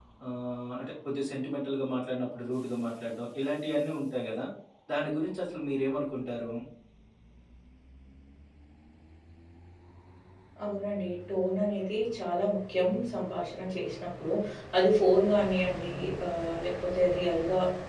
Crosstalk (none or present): none